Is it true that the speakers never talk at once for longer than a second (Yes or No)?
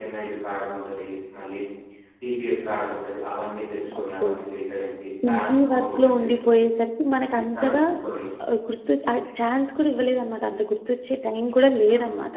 No